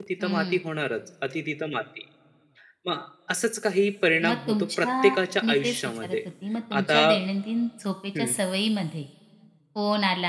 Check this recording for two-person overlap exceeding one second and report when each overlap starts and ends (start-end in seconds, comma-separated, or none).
4.3-6.2